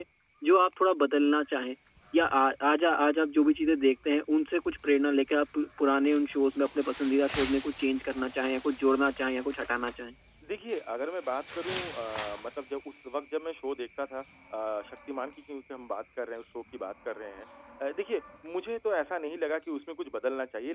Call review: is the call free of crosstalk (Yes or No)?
Yes